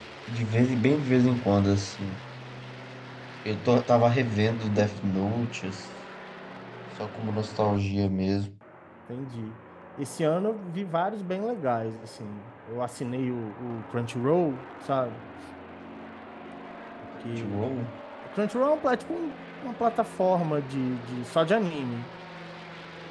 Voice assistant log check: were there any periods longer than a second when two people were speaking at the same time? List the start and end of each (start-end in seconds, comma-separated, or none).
none